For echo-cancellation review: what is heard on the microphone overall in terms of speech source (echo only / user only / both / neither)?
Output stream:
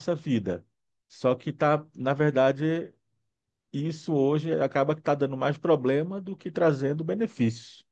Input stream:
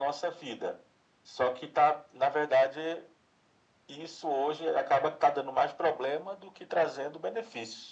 echo only